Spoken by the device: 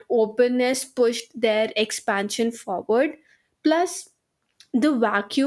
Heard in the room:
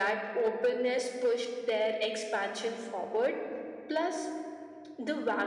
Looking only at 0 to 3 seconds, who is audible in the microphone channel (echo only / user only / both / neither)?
echo only